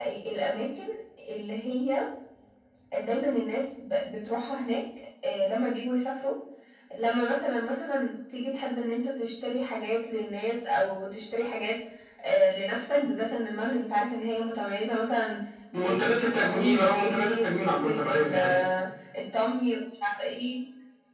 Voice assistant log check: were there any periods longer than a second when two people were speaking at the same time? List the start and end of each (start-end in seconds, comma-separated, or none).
15.8-18.6